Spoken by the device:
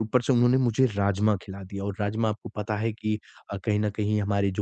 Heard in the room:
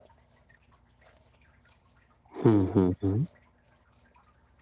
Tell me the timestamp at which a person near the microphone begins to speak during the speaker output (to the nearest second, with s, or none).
2 s